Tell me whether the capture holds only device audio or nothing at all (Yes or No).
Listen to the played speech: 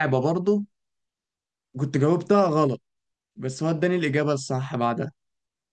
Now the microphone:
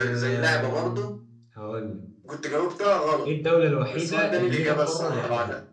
No